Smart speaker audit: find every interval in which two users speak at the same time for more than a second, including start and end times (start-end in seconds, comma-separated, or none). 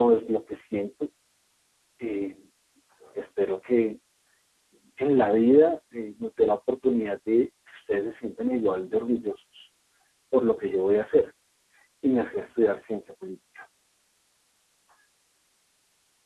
none